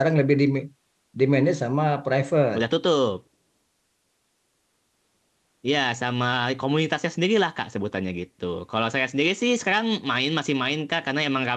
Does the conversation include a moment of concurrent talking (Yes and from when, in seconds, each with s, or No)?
No